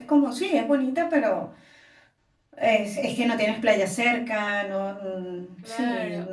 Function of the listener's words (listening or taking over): taking over